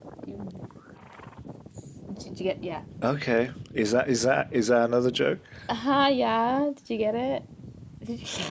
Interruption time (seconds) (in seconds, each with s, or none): none